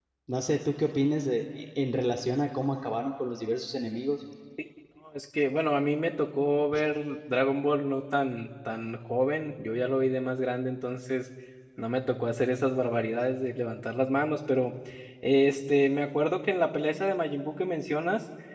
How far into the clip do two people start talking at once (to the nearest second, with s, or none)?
none